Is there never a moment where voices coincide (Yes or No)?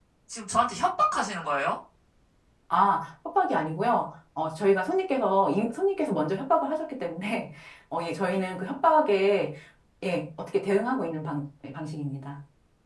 Yes